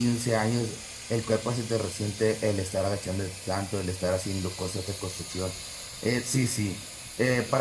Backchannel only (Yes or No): Yes